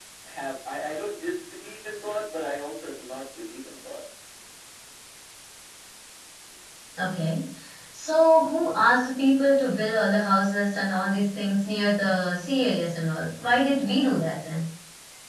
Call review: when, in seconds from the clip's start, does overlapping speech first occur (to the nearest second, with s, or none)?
none